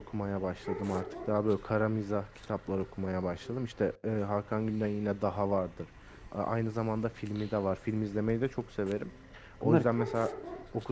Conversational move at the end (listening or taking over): listening